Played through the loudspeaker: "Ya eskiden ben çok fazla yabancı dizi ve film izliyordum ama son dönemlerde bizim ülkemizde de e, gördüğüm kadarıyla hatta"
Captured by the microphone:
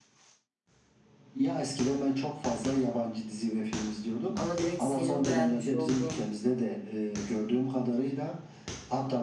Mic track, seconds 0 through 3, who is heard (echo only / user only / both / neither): echo only